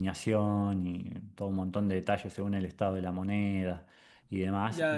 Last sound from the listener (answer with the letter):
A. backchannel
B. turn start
A